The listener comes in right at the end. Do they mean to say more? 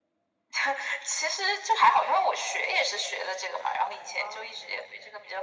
No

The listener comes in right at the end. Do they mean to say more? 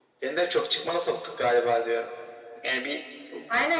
Yes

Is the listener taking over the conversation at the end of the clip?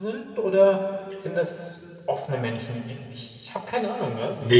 Yes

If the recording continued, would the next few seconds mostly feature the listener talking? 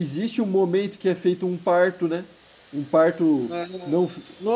Yes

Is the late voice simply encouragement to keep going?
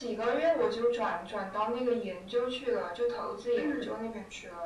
Yes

